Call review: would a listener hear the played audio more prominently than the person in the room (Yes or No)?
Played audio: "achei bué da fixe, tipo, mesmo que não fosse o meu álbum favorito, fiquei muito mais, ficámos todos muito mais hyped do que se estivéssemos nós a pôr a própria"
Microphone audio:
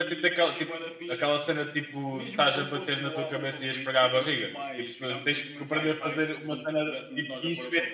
No